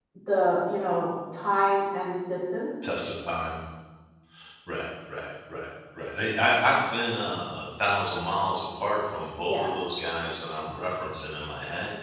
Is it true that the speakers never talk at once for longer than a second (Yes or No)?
Yes